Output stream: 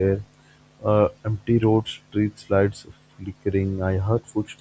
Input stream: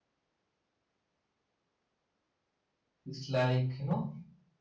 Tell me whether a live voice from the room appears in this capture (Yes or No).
Yes